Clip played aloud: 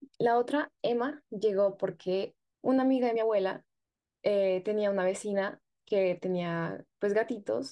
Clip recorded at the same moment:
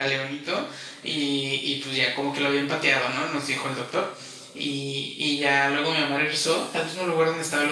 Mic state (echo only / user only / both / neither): user only